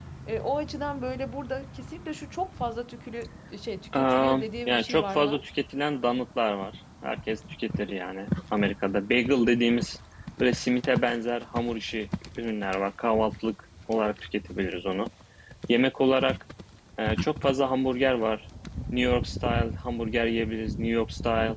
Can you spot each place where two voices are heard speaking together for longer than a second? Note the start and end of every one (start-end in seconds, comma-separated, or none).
3.9-5.4